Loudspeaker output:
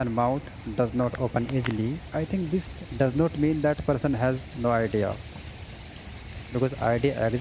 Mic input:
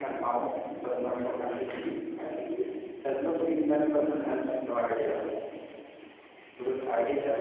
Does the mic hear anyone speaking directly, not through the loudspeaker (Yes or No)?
No